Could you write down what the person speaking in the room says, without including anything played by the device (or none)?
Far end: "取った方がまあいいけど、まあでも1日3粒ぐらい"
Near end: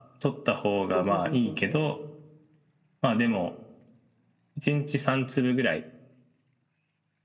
そうそうそうそうそ